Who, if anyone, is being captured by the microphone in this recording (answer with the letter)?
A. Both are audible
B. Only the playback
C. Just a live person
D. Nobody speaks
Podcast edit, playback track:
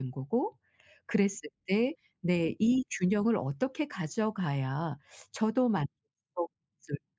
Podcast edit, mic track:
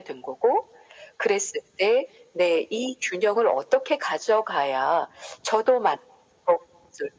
B